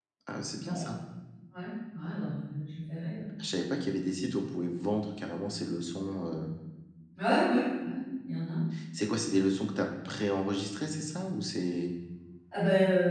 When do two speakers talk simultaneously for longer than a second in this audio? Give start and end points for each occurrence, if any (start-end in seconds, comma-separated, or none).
none